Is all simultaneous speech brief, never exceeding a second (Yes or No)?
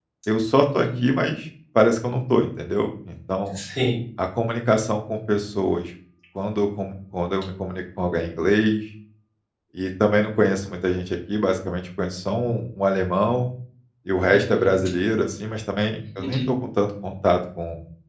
Yes